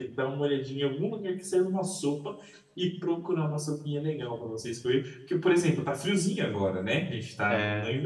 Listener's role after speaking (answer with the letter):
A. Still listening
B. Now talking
A